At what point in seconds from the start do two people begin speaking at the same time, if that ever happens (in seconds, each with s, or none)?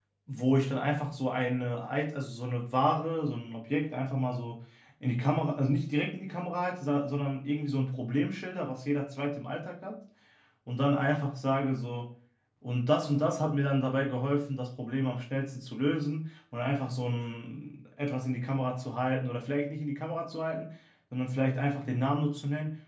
none